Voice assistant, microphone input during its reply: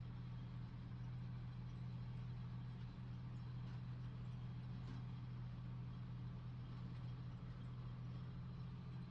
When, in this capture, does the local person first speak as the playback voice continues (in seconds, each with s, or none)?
none